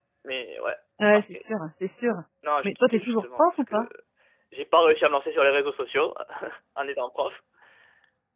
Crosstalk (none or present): present